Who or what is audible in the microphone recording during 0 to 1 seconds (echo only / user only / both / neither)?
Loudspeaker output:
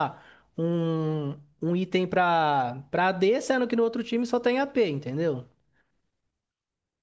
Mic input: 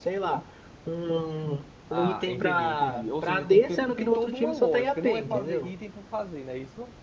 echo only